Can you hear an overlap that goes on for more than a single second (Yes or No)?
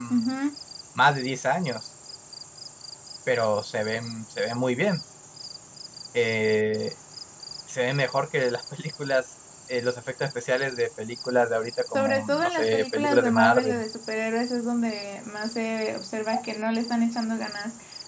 Yes